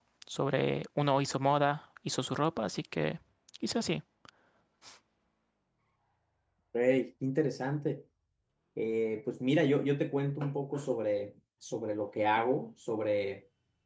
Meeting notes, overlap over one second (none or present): none